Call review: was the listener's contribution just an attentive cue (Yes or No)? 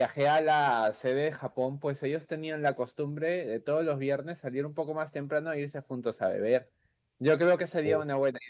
Yes